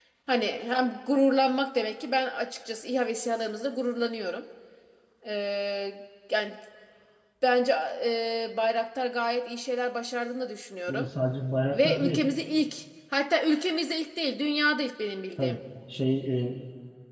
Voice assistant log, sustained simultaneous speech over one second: none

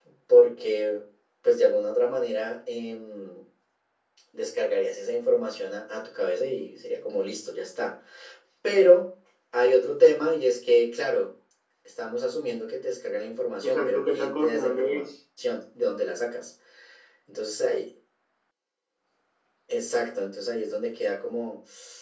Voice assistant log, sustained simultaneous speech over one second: present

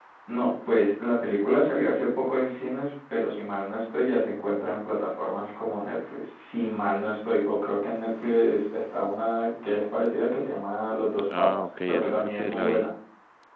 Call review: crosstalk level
present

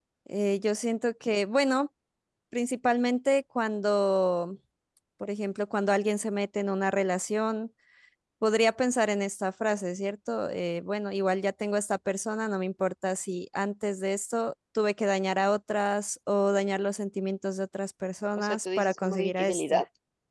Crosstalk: present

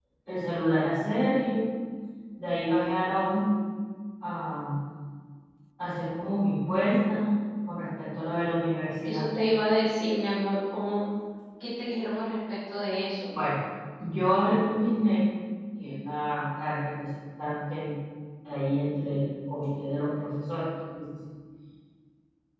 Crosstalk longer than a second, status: none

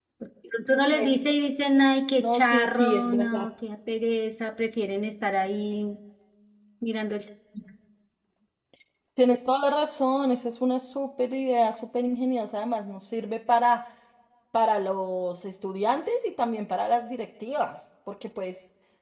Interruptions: present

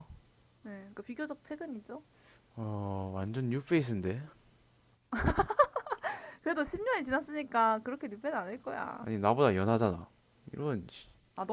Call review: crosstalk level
none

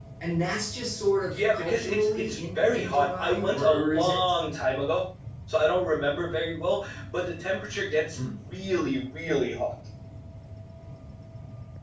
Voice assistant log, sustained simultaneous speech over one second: present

